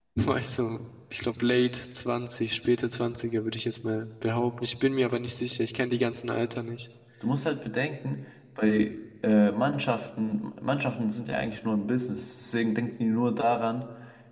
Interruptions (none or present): none